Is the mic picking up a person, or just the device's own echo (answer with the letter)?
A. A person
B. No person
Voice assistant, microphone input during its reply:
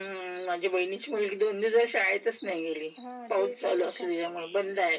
A